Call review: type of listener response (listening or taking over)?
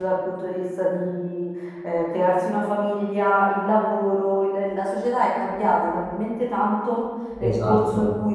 listening